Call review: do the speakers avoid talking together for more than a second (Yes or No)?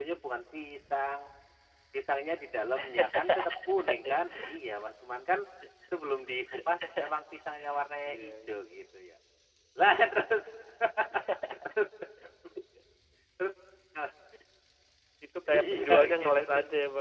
No